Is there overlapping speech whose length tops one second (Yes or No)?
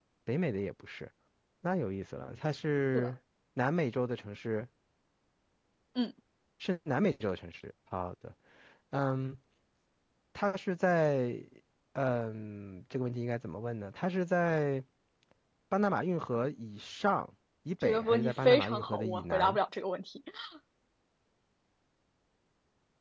Yes